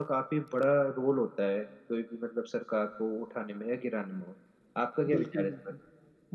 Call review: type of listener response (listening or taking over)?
taking over